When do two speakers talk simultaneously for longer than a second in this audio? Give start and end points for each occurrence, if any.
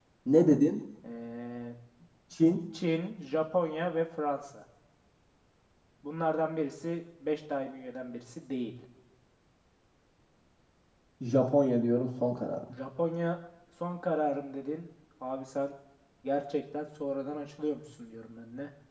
none

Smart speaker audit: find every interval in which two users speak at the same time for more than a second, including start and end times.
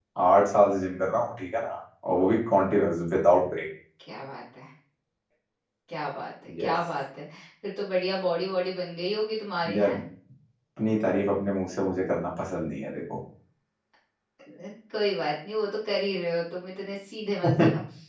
none

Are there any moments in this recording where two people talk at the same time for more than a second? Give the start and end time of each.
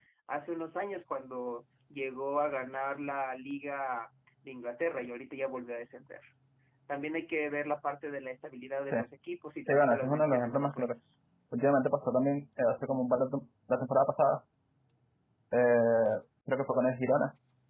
9.7-10.9

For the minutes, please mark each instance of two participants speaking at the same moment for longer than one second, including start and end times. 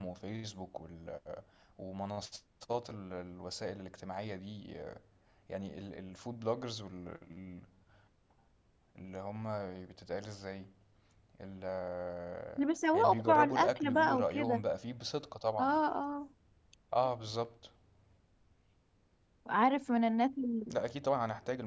12.9-14.6

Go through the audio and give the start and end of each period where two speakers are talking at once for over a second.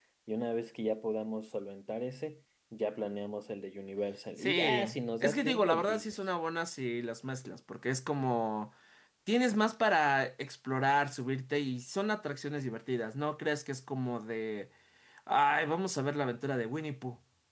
4.4-6.1

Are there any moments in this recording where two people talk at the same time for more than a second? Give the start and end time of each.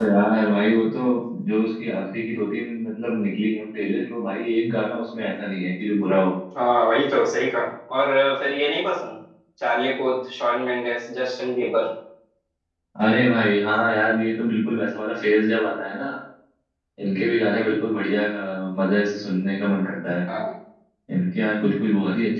none

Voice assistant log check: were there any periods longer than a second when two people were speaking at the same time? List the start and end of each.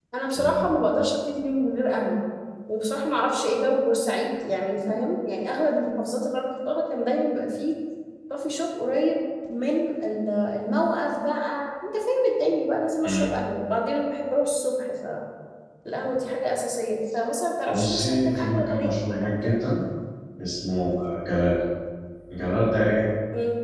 17.7-19.6

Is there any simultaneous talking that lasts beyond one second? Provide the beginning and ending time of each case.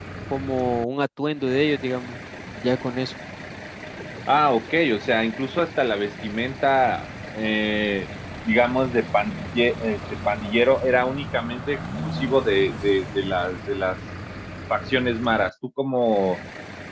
none

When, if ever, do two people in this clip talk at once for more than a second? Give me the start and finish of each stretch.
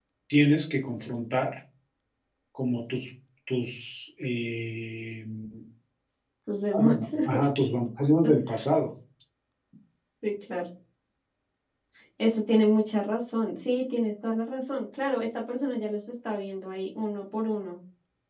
none

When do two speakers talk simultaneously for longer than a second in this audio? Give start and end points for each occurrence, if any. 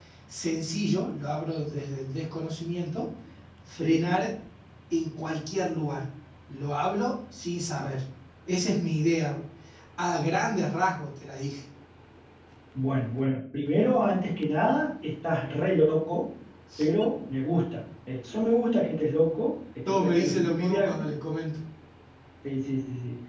19.8-21.1

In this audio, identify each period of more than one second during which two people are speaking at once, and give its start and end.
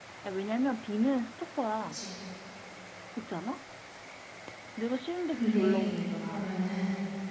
5.3-6.6

